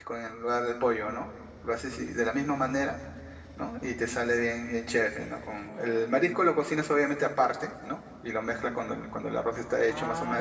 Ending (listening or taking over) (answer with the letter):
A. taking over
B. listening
A